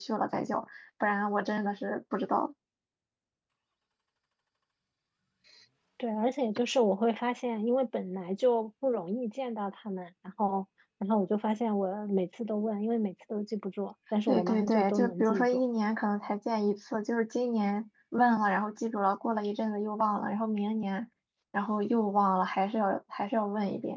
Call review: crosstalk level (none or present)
present